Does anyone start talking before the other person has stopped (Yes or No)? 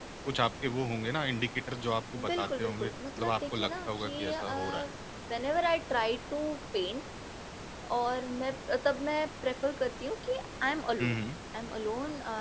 Yes